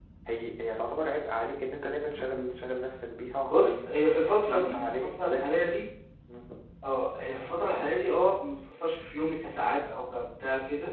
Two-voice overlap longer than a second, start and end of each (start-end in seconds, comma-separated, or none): 4.5-5.7